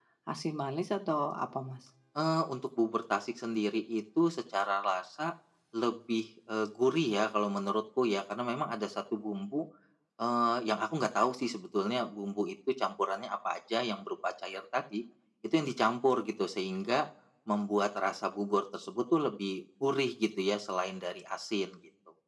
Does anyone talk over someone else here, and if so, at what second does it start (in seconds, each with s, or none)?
none